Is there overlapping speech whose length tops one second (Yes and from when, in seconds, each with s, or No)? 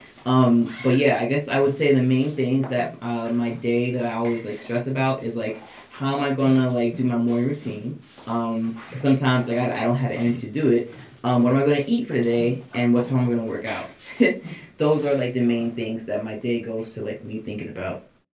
No